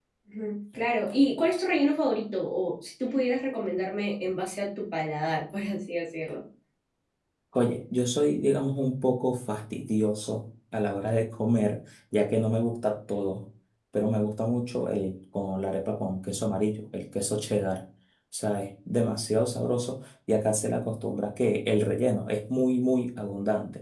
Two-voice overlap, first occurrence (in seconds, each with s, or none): none